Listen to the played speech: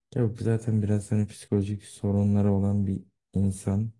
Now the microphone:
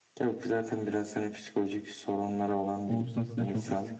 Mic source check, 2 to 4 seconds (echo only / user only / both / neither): both